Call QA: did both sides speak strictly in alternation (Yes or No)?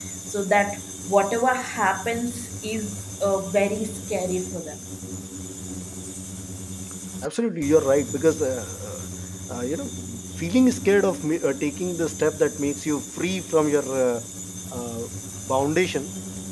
Yes